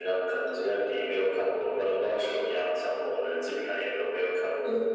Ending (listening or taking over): listening